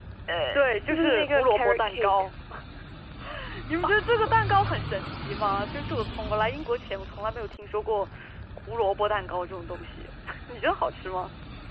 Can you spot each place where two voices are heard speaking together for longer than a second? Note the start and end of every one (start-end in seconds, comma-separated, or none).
0.5-2.1